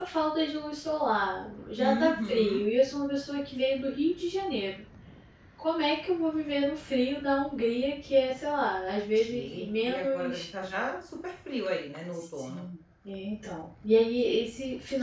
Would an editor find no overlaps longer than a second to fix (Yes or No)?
No